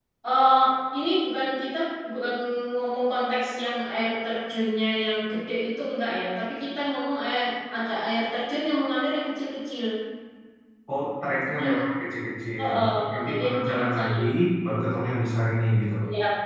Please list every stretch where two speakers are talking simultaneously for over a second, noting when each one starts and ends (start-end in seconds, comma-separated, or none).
12.6-14.2